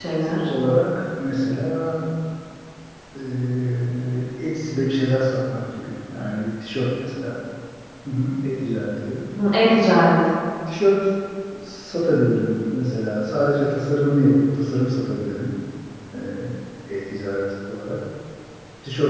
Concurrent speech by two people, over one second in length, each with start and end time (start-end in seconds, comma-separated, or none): none